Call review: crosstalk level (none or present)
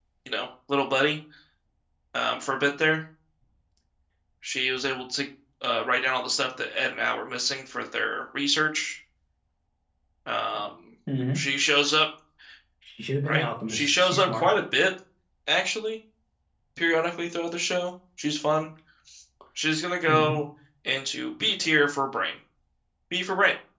present